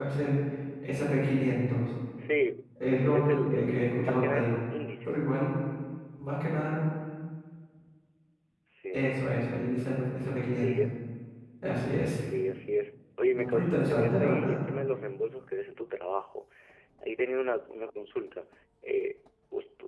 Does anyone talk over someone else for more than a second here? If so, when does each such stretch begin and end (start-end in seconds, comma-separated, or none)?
3.1-4.5, 13.3-14.6